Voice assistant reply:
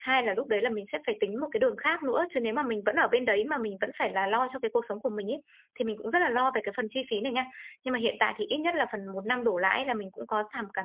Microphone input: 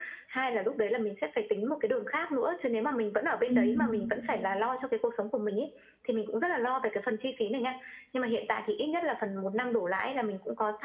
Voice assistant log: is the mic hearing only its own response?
No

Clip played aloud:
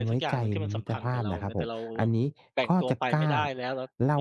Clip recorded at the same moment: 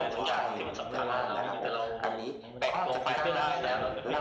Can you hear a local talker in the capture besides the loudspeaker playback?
Yes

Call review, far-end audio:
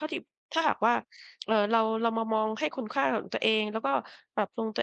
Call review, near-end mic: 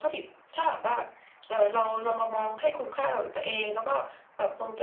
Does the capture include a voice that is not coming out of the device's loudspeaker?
No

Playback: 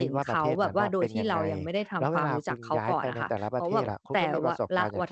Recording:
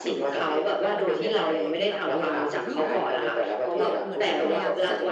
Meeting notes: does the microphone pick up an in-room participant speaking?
Yes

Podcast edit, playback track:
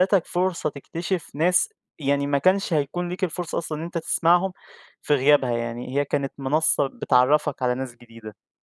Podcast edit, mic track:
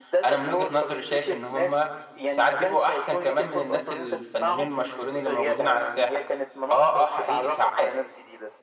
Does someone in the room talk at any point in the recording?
Yes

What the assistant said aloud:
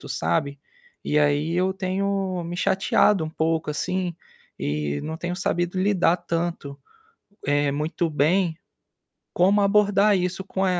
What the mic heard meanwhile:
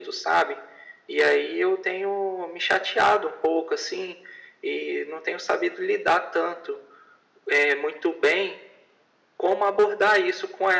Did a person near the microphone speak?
No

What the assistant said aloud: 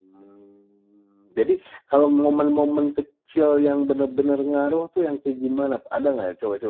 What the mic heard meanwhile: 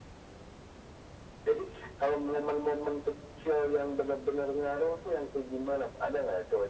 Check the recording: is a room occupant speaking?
No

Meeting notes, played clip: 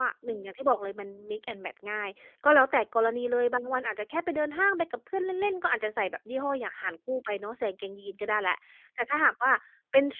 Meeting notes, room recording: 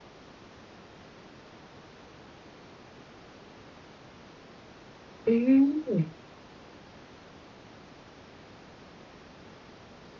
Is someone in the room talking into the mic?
Yes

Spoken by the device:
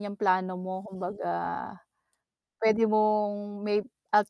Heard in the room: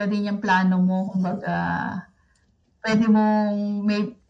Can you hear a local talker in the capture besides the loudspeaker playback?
No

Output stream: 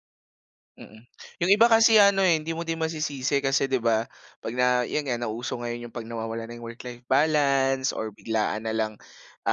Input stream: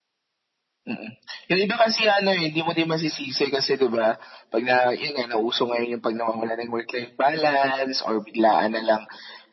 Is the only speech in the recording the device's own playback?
Yes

